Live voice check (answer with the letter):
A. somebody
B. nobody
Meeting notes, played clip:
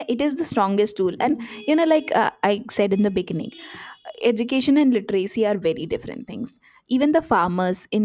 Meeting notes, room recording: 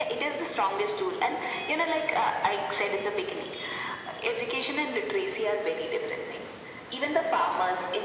B